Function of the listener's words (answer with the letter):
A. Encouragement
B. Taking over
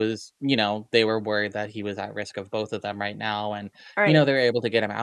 A